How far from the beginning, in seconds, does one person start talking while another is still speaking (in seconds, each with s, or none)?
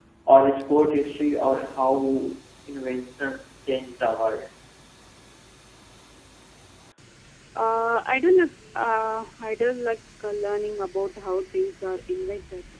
none